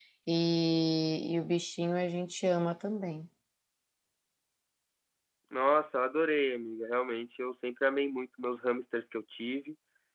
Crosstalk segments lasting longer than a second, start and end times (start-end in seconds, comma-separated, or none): none